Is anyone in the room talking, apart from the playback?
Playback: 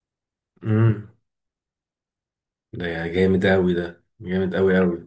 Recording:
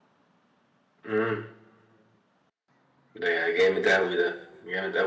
No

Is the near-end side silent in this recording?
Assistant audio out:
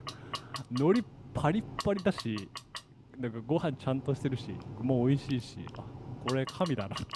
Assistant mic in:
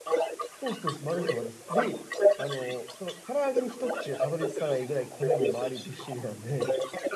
No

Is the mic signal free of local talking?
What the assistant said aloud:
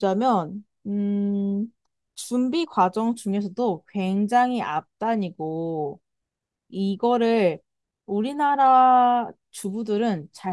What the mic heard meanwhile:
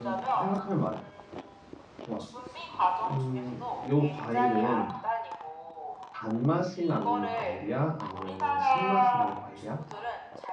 No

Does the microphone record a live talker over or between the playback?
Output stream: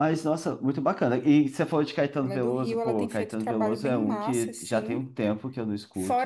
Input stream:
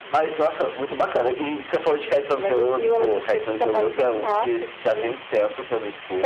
No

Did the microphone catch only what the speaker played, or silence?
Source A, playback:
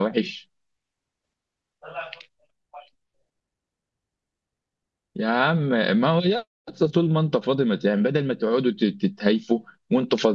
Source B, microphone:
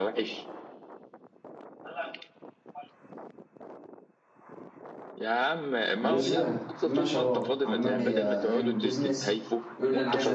No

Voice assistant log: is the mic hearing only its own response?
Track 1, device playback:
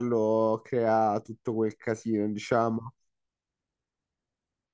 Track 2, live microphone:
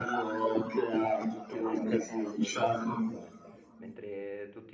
No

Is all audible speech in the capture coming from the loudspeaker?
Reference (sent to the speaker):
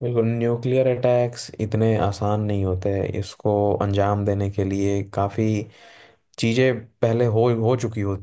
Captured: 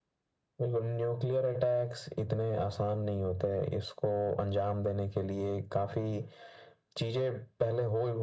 Yes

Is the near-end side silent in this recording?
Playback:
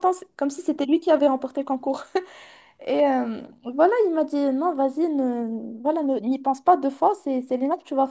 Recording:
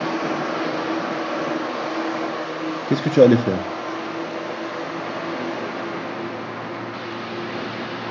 No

